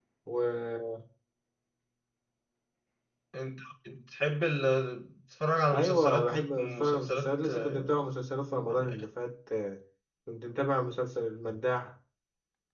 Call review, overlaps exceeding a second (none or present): present